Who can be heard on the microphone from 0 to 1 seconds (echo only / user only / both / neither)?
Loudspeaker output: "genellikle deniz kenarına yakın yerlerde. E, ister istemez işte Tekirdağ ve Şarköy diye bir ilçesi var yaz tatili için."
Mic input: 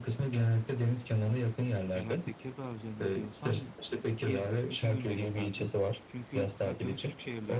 echo only